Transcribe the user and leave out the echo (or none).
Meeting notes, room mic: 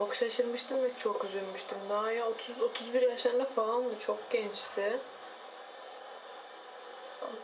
none